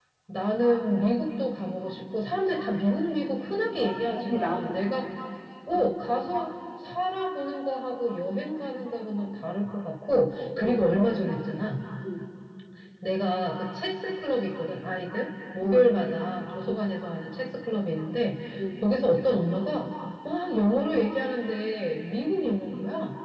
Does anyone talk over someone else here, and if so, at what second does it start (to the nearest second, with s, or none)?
3 s